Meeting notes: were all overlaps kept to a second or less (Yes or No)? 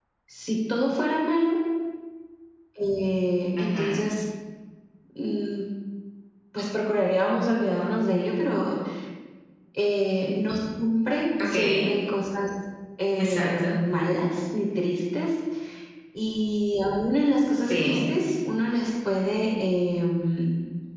Yes